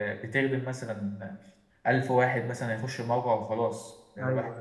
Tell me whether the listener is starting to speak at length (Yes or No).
No